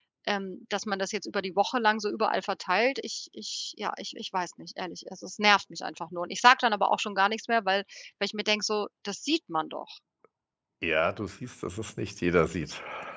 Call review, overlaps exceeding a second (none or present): none